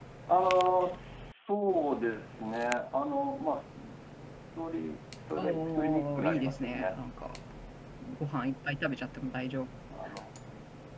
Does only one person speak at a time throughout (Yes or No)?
No